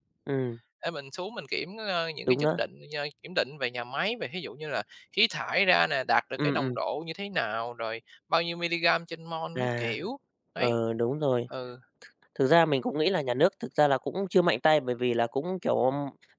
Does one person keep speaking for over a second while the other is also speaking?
No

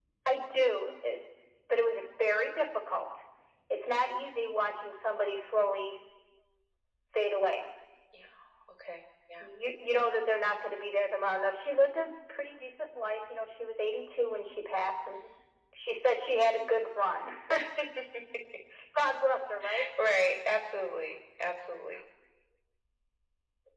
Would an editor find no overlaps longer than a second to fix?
Yes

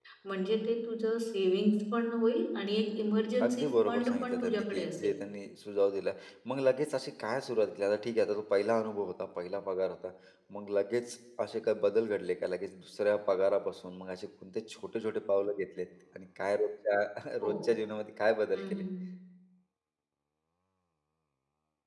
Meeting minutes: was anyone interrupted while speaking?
Yes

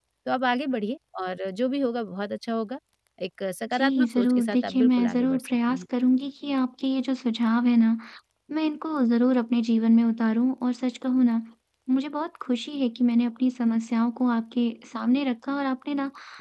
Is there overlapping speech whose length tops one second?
Yes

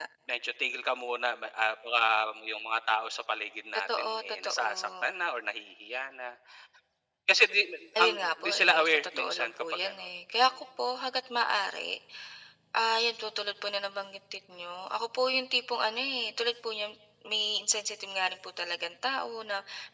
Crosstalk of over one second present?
Yes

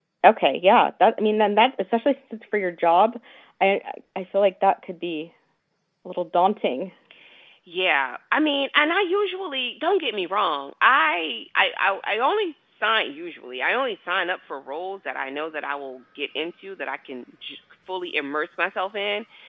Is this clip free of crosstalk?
Yes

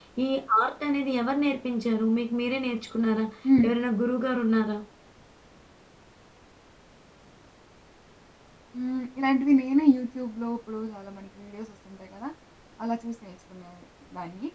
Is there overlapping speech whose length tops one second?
No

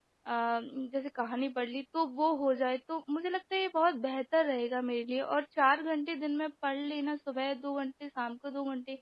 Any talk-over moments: No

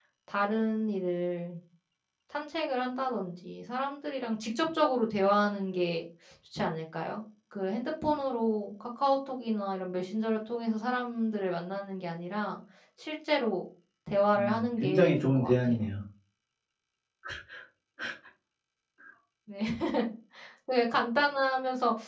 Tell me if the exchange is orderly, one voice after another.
No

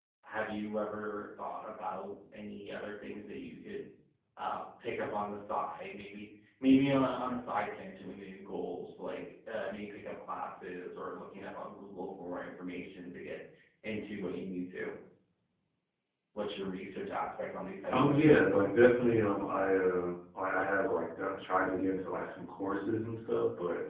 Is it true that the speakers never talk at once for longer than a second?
Yes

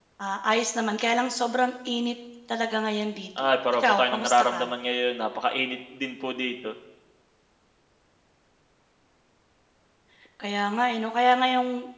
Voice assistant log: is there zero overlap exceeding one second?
No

